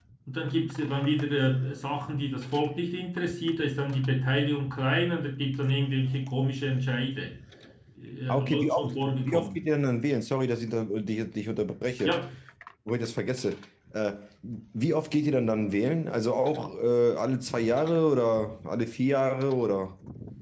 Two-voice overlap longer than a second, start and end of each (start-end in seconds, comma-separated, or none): 8.3-9.6